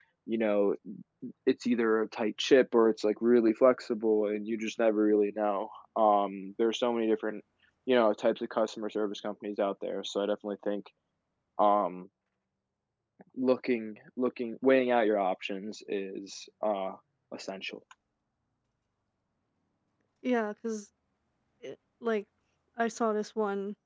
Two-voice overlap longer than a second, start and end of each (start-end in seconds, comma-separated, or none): none